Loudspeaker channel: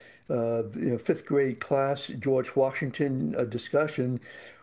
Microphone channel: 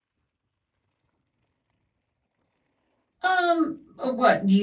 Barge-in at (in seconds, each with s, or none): 3.2 s